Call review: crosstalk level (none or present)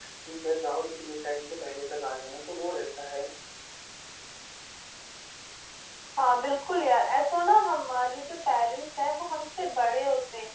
none